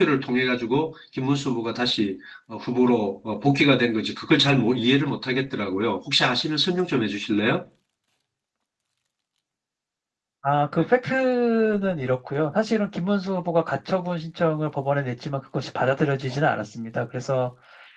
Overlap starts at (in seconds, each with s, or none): none